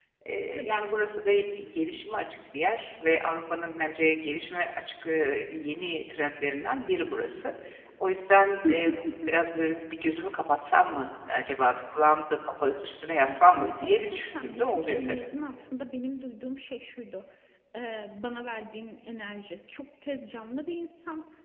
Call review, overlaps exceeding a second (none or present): present